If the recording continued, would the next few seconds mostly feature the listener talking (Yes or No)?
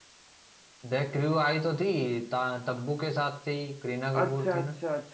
Yes